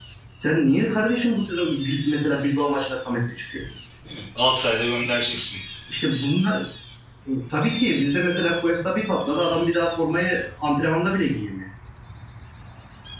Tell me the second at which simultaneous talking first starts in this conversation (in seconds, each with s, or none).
none